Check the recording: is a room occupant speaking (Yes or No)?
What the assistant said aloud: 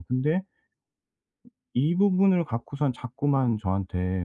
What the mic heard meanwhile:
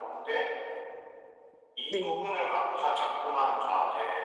Yes